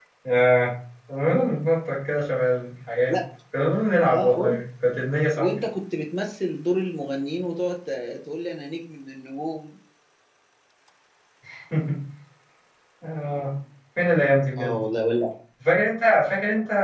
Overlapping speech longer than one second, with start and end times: none

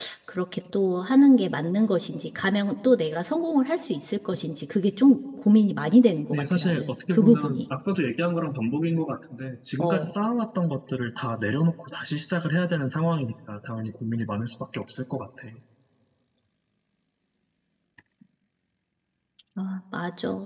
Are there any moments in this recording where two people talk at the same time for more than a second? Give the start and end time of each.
6.3-7.6

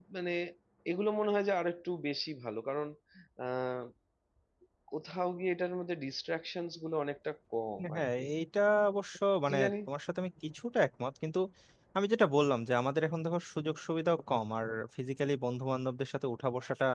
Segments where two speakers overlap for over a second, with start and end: none

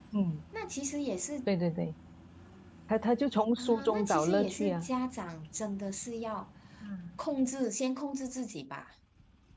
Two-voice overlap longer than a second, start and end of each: 3.6-4.9

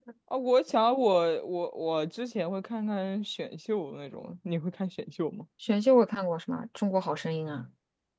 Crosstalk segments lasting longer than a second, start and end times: none

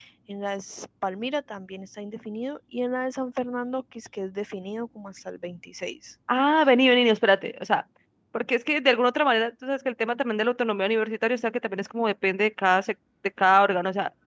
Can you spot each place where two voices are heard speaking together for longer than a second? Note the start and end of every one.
none

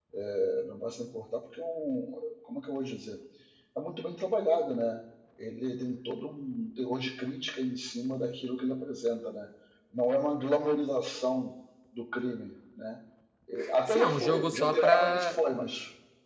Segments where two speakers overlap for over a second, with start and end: 13.9-15.4

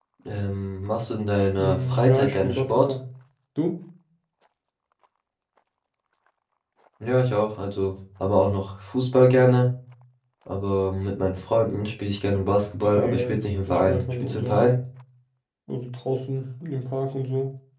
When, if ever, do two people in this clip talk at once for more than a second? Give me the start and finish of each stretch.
1.6-2.9, 12.9-14.7

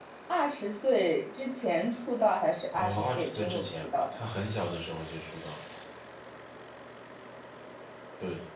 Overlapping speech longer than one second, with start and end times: 2.7-4.0

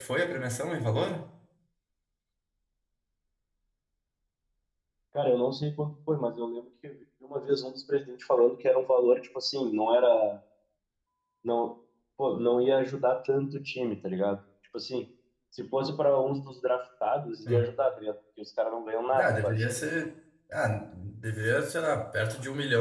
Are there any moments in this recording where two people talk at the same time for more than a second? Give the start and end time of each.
none

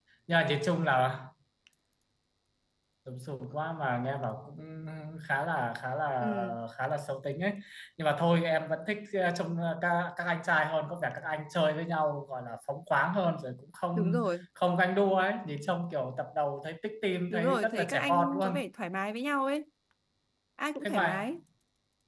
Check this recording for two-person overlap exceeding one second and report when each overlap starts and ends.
17.3-18.6

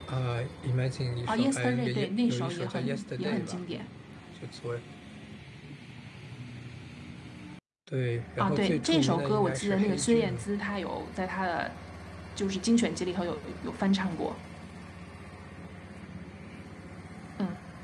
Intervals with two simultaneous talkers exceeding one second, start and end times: 1.3-3.6, 8.4-10.4

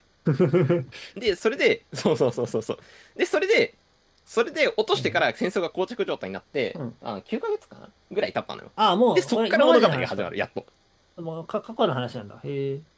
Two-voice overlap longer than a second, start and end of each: 9.1-10.3

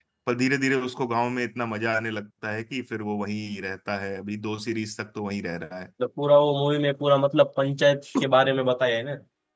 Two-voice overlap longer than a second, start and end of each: none

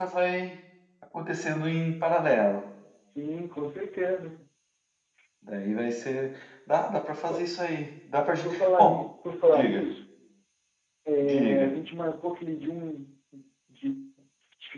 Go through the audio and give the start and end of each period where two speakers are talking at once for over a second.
none

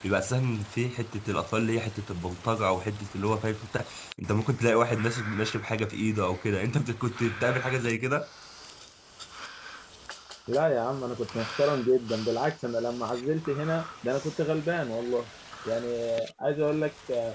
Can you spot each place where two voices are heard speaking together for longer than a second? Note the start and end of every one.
none

